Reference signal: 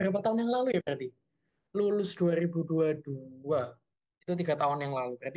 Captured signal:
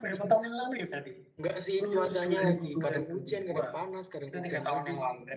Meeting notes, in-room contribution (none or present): present